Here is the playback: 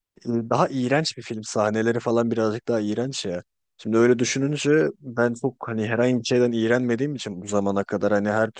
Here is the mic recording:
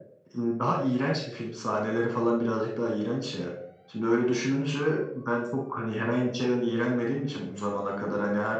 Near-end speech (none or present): none